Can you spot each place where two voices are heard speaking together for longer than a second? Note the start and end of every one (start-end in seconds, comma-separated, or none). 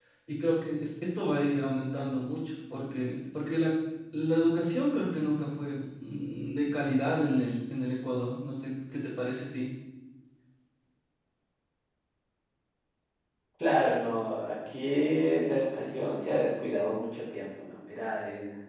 none